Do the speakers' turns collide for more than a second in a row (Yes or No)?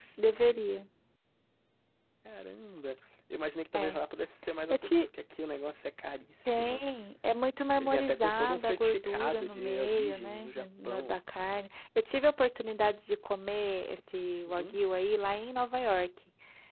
Yes